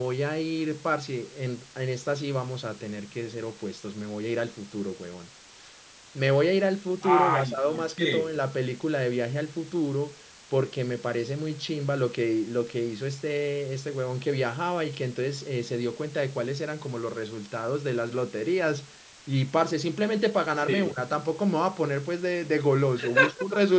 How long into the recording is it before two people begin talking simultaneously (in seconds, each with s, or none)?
7.0 s